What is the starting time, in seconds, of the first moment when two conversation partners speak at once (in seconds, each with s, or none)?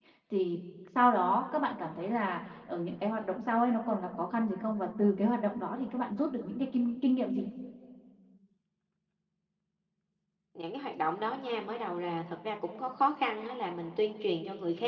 none